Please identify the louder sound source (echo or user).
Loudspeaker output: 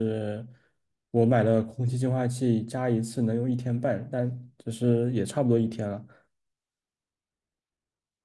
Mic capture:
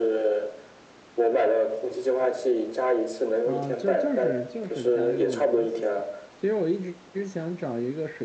echo